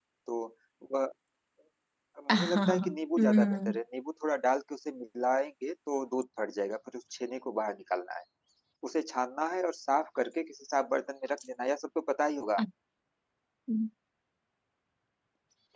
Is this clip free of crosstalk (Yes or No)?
No